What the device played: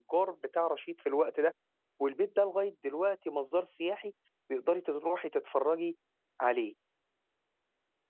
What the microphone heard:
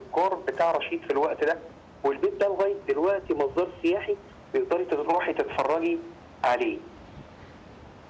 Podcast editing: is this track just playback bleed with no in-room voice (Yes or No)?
Yes